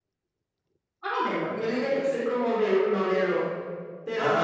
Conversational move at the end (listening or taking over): listening